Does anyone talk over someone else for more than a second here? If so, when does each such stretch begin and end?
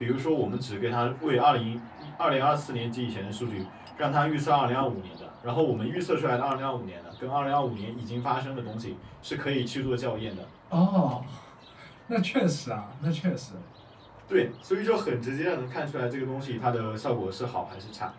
none

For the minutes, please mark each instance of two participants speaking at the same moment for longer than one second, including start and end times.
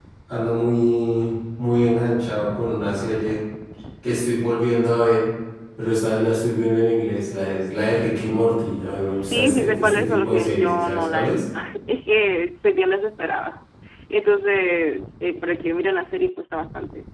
9.1-11.4

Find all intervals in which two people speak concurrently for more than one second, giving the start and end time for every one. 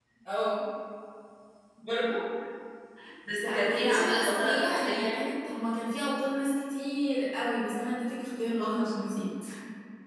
3.4-5.3

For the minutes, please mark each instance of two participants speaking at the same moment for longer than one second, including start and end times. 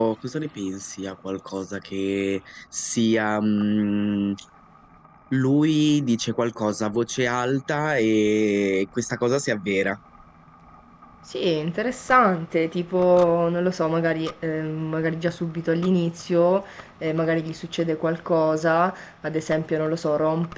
none

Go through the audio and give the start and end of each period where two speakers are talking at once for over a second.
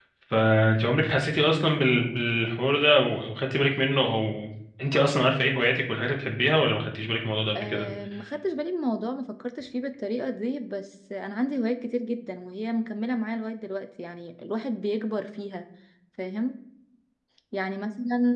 none

